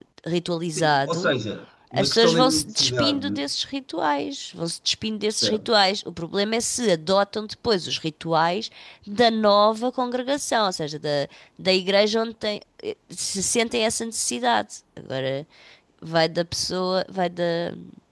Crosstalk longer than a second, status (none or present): present